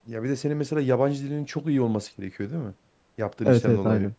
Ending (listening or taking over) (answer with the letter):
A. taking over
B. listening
A